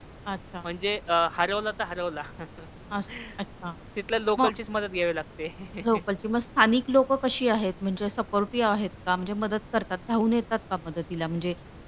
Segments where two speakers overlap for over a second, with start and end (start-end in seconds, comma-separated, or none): none